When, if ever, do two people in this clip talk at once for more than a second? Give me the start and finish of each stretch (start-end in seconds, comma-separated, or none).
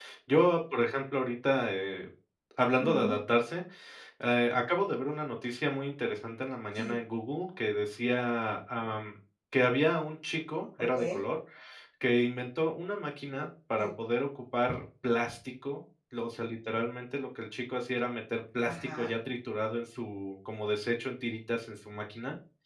none